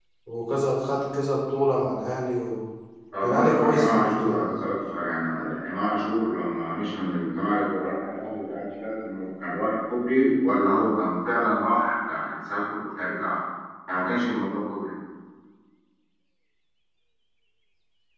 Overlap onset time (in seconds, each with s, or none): 3.2 s